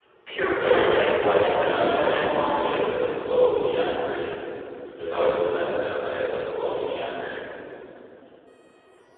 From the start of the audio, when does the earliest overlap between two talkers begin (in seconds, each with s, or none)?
0.6 s